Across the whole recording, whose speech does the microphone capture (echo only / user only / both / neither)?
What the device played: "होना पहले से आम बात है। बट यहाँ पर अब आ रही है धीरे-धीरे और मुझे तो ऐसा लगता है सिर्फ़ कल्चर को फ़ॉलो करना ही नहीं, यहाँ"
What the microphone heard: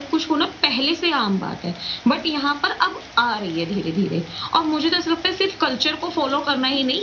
echo only